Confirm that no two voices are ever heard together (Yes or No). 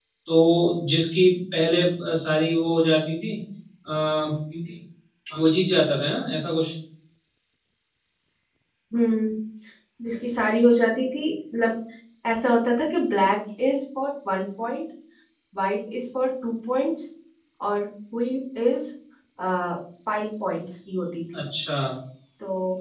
Yes